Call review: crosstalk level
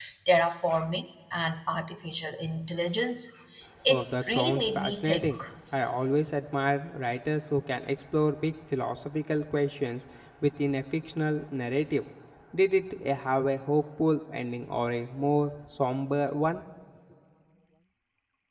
present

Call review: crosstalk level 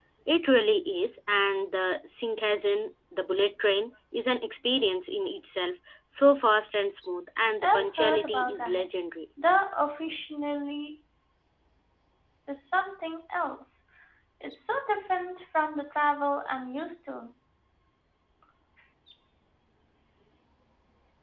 present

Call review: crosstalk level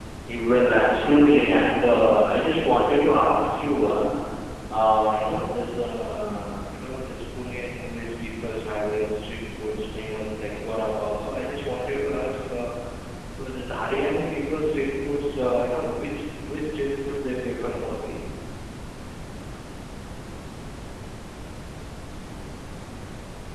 present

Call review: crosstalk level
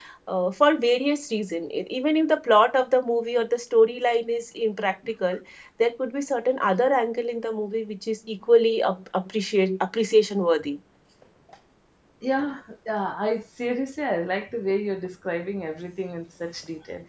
none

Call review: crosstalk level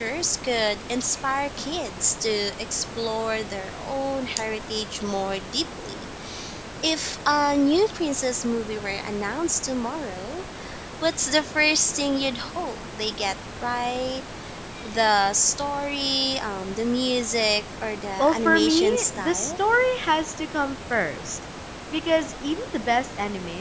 present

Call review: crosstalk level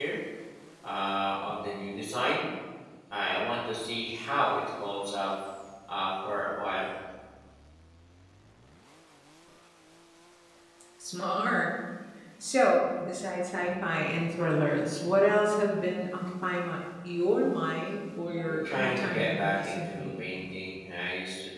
present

